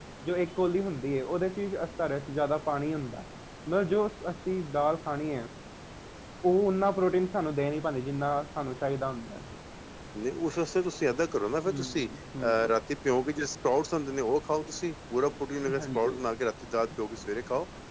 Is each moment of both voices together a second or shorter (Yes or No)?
Yes